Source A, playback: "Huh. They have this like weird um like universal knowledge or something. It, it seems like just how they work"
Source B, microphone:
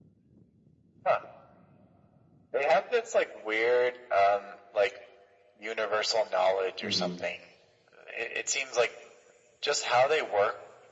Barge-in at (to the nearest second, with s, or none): 7 s